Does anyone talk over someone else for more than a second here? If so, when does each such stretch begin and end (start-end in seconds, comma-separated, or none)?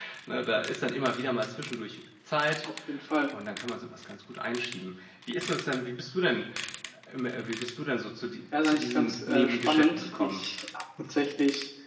8.6-10.4